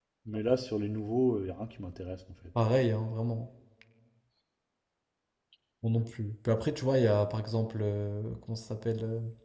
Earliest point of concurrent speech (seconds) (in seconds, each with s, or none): none